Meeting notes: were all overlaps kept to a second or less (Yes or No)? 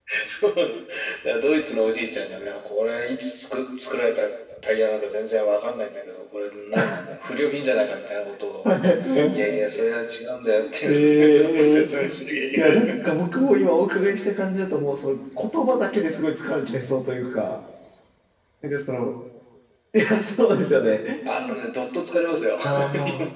No